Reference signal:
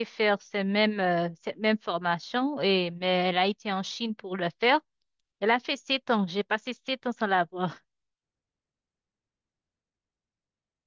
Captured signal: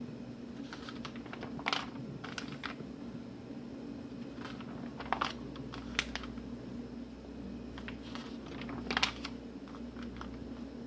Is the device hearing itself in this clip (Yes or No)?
No